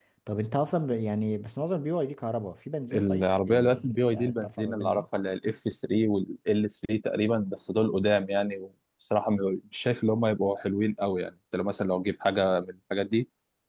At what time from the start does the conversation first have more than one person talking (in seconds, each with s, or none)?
2.9 s